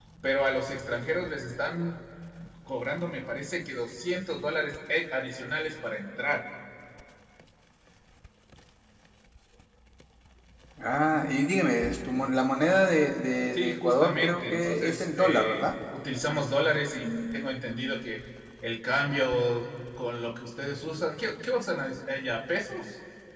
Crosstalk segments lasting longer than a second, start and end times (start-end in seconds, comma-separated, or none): 13.5-15.7